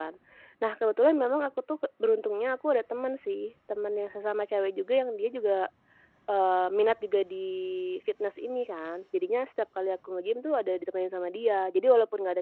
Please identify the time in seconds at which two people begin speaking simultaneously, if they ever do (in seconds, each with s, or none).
none